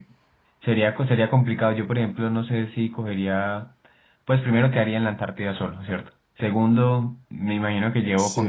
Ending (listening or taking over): listening